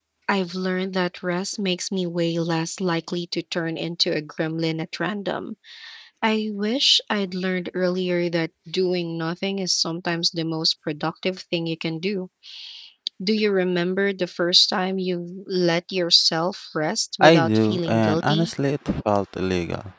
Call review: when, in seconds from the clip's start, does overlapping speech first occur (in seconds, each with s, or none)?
17.2 s